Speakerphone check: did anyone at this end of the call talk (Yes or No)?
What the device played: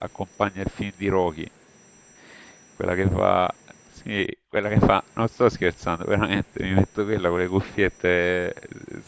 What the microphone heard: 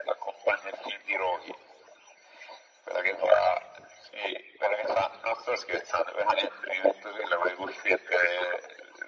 No